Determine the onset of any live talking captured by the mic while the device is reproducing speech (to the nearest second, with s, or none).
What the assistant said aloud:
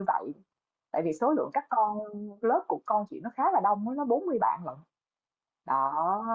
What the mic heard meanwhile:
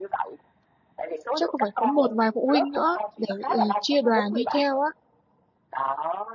1 s